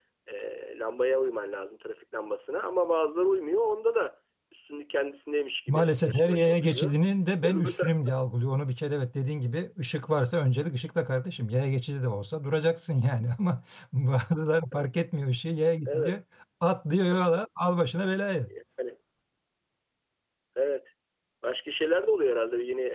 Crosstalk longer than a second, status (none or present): present